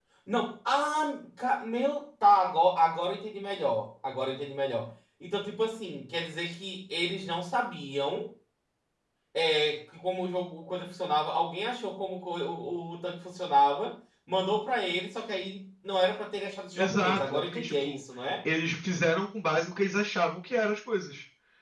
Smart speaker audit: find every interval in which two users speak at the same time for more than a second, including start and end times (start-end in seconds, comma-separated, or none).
16.8-18.0